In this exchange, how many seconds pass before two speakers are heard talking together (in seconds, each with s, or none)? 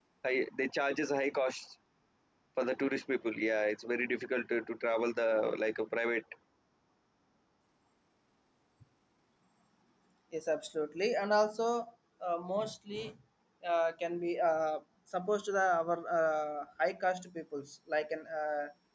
none